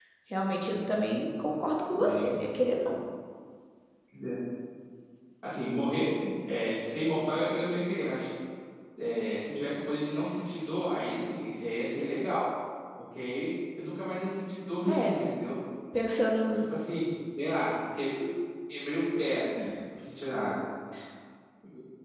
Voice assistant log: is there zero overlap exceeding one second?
Yes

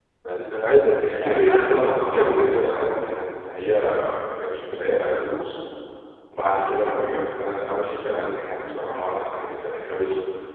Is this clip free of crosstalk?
No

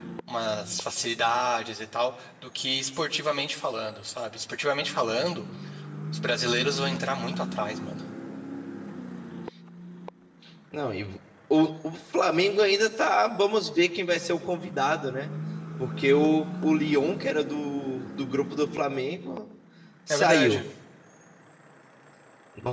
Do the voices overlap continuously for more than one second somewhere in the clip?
No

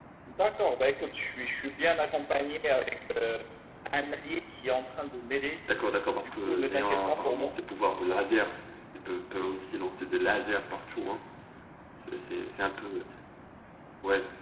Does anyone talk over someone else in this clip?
Yes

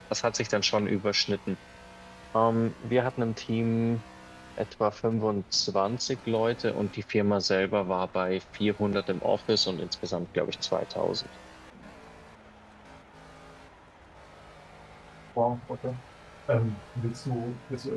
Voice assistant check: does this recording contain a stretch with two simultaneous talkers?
No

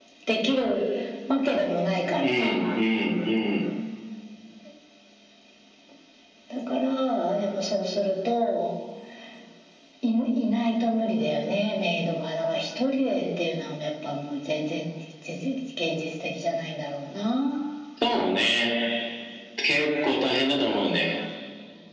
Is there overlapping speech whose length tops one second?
No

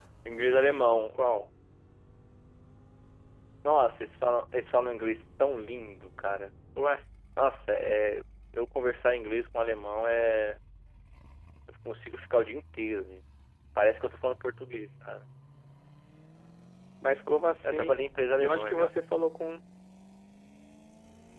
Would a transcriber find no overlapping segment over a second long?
Yes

